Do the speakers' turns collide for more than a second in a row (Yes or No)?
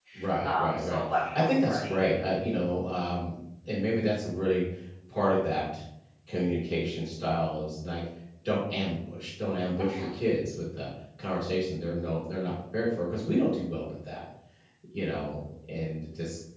Yes